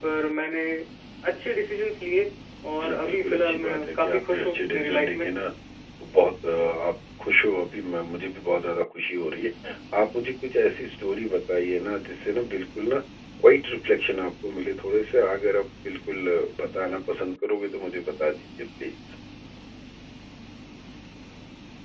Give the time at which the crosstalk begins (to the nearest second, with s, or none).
3 s